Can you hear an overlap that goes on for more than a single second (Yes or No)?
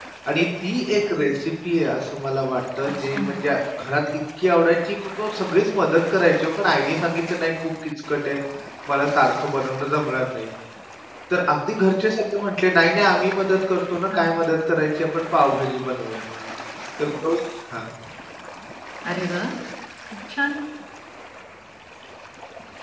No